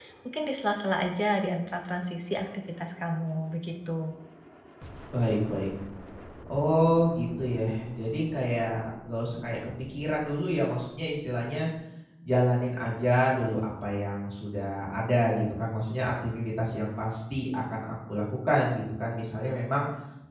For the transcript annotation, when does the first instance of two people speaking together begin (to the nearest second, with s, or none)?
none